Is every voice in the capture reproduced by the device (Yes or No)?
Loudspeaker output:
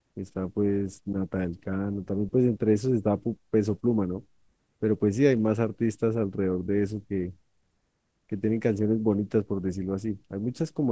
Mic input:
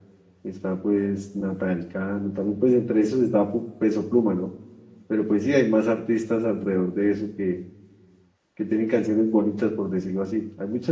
Yes